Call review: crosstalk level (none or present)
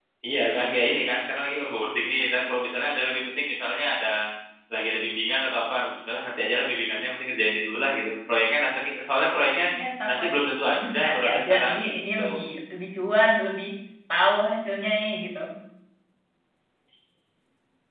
present